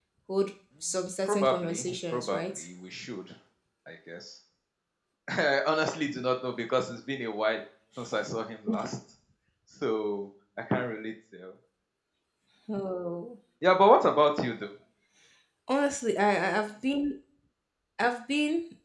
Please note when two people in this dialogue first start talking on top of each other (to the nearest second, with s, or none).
1 s